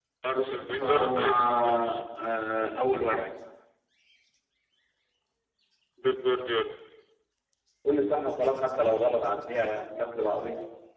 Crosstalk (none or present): present